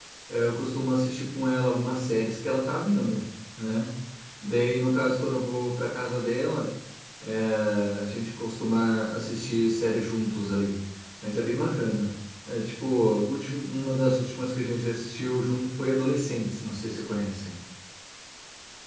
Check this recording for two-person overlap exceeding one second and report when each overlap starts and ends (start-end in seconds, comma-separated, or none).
none